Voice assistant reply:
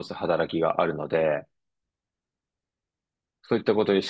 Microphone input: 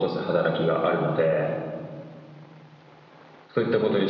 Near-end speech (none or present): none